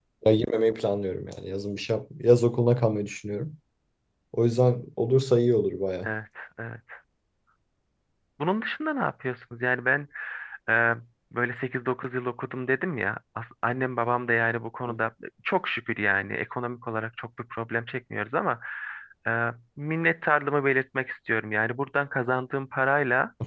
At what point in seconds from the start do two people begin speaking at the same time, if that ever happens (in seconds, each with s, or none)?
none